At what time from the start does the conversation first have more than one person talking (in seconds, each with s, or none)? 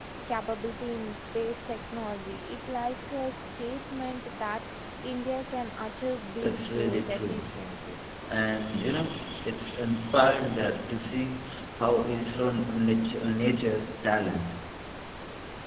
6.4 s